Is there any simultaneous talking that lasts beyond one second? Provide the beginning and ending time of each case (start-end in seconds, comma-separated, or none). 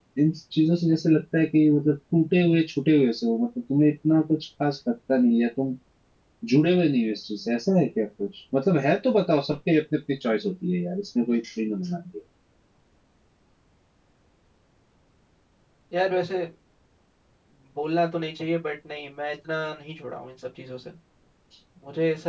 none